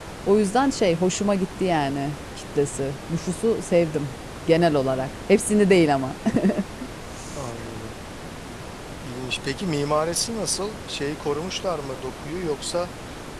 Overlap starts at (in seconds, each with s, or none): none